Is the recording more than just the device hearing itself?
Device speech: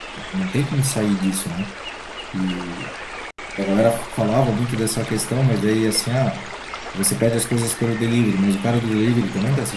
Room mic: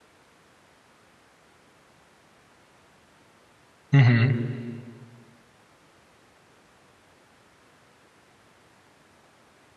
Yes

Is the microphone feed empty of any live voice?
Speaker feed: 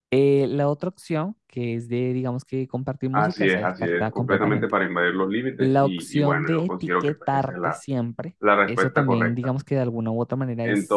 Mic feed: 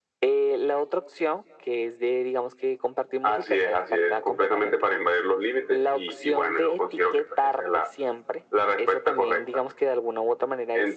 Yes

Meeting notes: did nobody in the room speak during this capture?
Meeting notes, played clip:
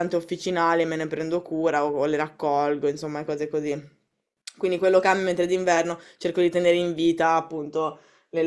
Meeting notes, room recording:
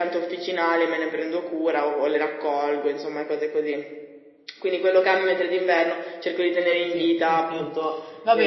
No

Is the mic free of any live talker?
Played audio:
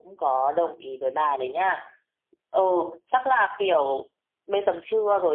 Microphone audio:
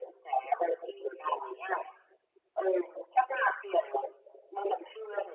Yes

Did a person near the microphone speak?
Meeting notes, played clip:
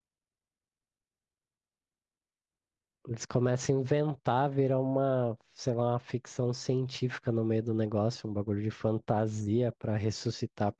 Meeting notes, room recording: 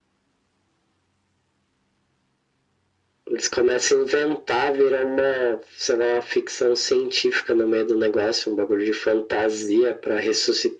No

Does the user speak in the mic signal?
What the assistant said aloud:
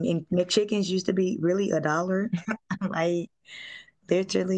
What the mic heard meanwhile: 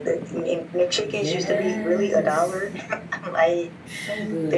Yes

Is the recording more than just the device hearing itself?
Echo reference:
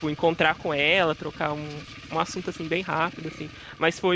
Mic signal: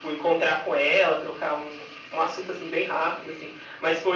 No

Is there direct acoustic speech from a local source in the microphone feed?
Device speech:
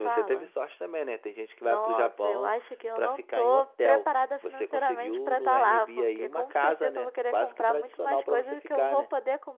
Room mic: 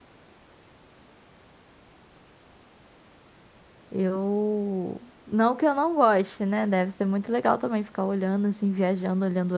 Yes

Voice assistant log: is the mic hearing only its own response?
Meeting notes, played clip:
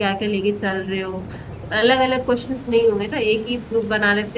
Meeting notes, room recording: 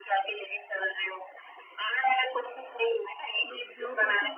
No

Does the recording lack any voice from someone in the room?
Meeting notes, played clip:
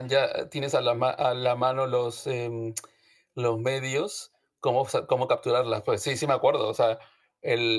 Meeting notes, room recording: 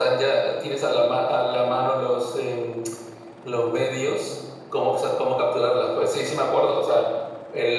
Yes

